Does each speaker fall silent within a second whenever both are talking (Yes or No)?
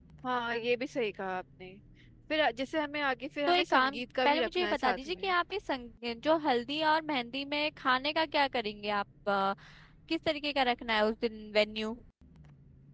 No